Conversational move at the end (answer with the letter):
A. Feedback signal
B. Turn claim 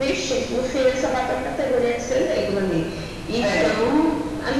A